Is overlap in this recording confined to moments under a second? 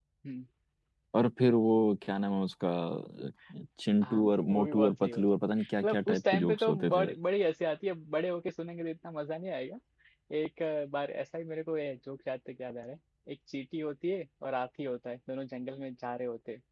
No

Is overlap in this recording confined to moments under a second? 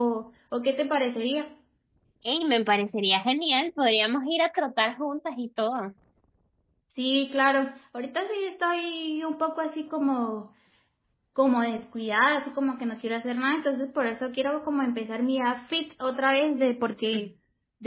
Yes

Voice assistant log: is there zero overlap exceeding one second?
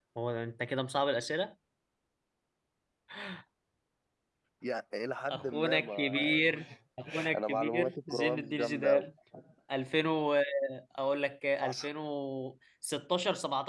No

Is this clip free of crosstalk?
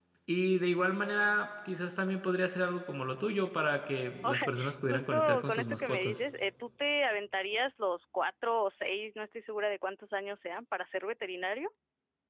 No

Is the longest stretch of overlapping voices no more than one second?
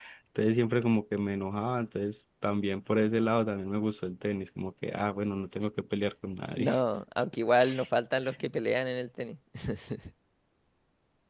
Yes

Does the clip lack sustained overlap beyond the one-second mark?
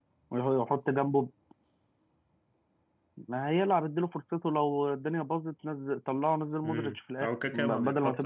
No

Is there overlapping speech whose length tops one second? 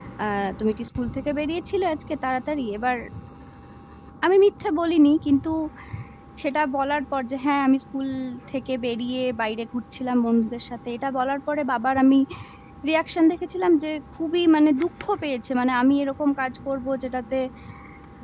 No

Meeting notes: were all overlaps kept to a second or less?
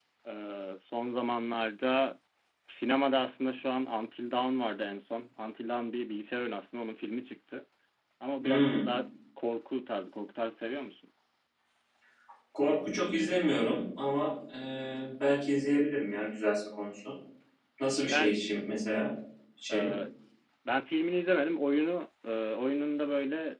Yes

